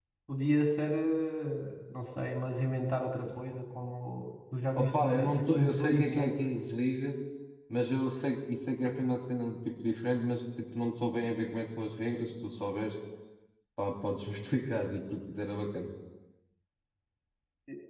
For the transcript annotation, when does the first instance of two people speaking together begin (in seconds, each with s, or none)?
4.8 s